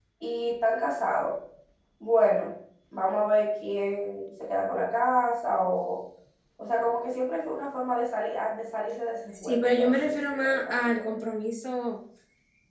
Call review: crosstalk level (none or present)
present